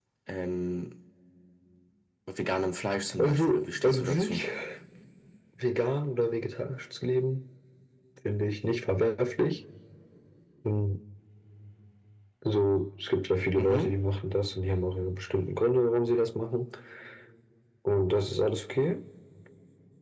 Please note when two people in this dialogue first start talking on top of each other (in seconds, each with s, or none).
3.2 s